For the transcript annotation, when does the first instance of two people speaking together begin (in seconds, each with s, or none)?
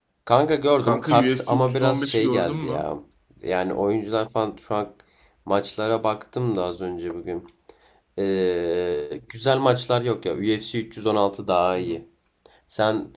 0.8 s